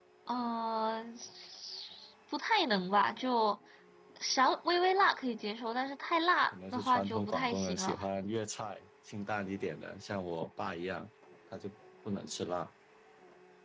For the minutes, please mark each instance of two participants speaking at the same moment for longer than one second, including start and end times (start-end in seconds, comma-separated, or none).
6.5-8.0